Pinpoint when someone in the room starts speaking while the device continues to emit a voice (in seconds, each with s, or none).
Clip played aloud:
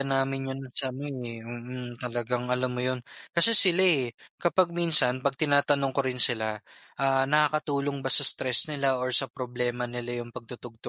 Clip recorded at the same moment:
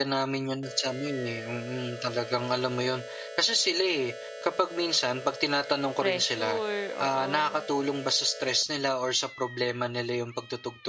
6.0 s